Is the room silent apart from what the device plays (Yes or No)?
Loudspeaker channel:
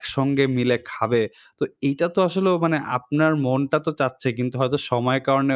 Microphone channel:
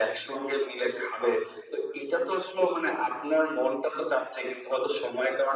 Yes